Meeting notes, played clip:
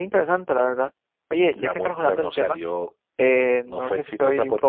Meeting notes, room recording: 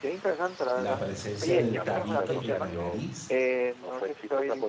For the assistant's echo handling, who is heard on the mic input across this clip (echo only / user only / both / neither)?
both